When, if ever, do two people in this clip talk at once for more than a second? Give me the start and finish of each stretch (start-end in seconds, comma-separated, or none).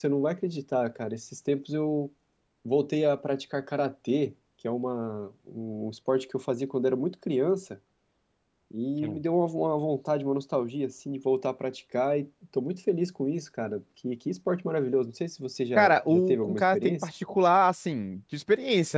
15.8-17.1